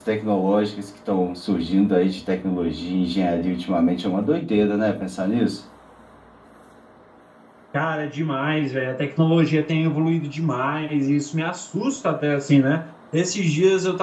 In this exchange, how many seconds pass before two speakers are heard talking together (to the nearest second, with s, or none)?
none